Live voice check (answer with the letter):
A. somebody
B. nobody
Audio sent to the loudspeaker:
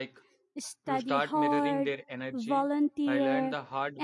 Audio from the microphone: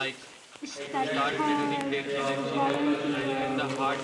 A